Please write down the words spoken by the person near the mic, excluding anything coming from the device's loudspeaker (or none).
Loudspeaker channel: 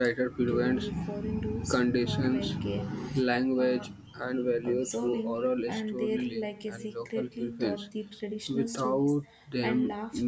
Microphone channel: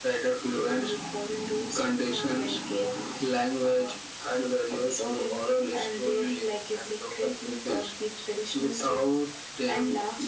none